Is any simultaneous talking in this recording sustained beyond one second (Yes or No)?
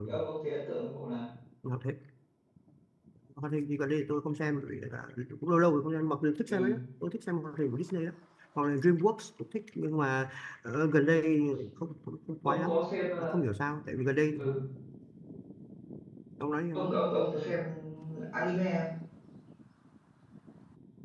No